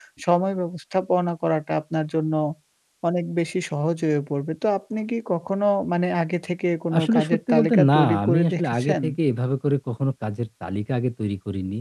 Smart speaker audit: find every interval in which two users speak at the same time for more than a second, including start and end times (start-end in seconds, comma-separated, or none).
7.0-9.0